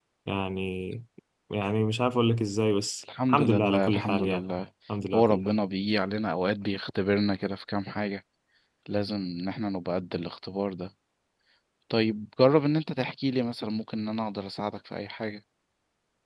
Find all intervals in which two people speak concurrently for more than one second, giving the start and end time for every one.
3.3-4.5

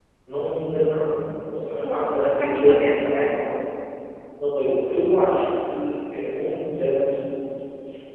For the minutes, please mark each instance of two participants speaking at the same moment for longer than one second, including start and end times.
1.8-3.4

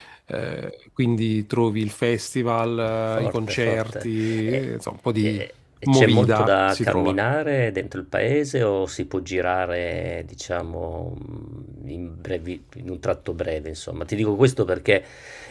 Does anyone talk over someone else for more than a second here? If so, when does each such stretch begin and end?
3.1-4.7, 5.8-7.2

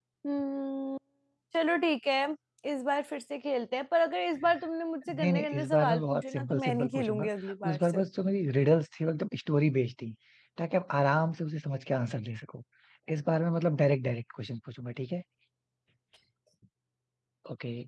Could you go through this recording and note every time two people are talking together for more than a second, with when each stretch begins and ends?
5.1-7.3

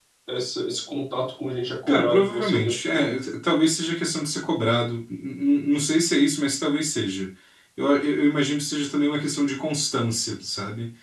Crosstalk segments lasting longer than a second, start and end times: 1.9-3.1

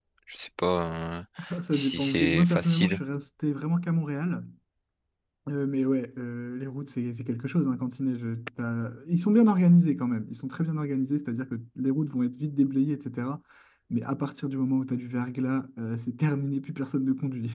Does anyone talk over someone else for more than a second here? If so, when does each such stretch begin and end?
1.7-3.0

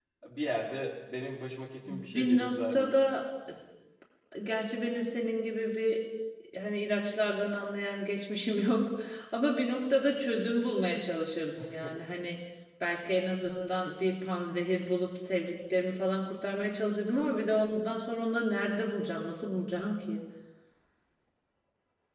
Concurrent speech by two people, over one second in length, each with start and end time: 1.9-3.1

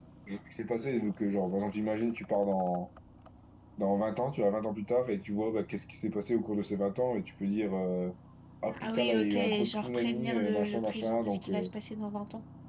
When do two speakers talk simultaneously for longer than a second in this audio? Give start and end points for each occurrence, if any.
8.8-11.7

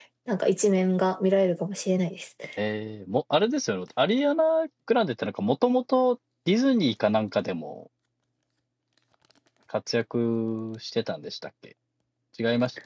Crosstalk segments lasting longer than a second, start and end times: none

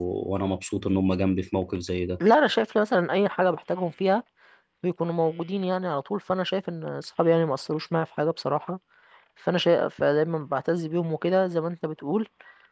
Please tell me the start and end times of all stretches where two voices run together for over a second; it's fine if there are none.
none

